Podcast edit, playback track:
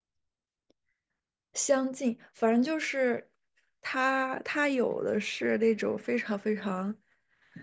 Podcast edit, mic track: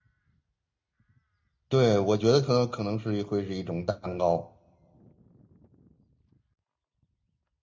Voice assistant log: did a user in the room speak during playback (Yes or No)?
Yes